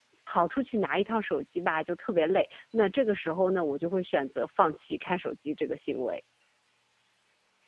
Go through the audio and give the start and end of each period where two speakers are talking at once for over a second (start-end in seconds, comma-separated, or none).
none